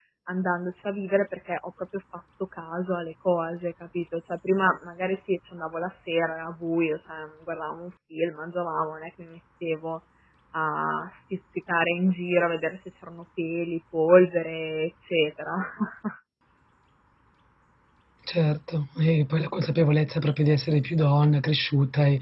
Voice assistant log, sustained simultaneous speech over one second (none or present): none